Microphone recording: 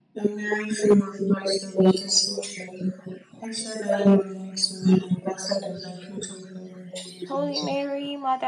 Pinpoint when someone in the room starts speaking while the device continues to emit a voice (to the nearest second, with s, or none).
7 s